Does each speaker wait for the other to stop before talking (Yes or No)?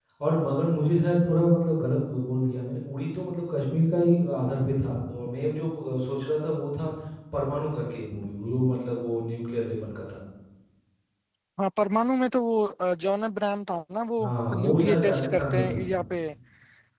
No